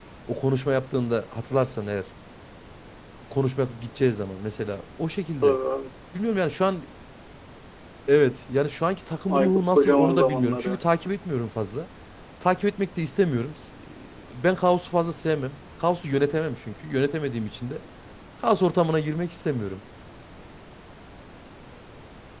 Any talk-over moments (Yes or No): Yes